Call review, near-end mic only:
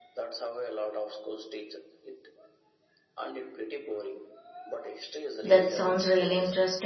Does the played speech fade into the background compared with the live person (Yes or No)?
Yes